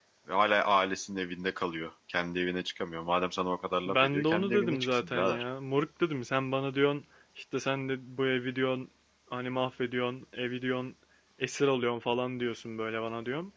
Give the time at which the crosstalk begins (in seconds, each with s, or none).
3.9 s